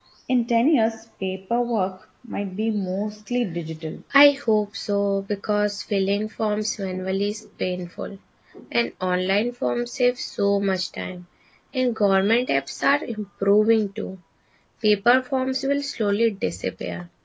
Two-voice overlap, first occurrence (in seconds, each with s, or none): none